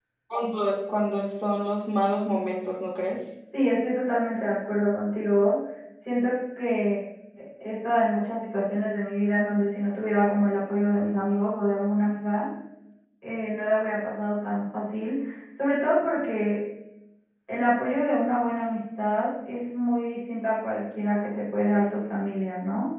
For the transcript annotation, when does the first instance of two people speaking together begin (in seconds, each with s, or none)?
none